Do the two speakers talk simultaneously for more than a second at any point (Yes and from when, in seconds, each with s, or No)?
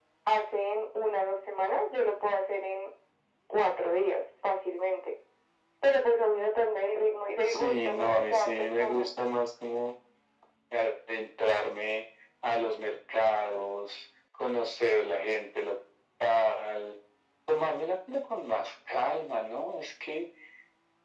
Yes, from 7.5 s